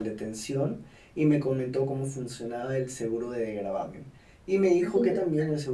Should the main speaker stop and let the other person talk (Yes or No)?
No